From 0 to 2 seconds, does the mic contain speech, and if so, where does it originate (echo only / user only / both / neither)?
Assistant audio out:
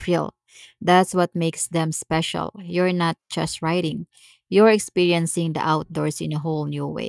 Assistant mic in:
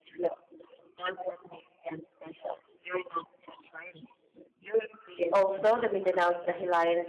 echo only